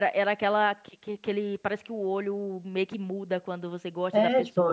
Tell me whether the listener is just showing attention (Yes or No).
No